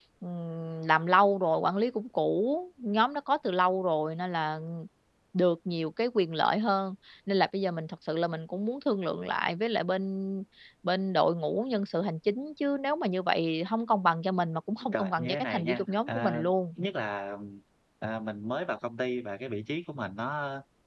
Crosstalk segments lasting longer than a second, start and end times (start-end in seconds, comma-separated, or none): 14.9-16.5